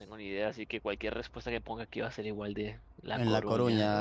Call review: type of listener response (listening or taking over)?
taking over